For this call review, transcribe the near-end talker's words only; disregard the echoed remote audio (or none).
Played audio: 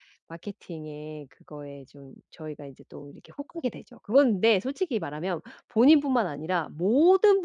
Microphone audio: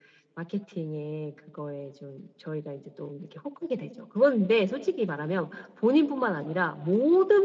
none